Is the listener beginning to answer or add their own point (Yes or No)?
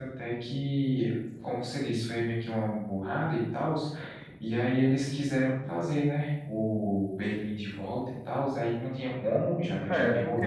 Yes